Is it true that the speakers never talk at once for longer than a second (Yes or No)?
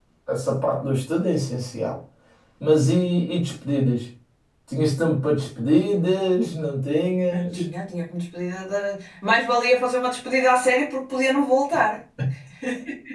Yes